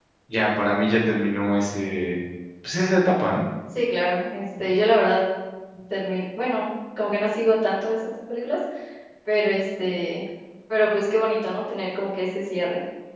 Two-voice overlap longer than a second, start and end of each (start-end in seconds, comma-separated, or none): none